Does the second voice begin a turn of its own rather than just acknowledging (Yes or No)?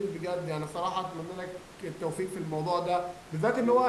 No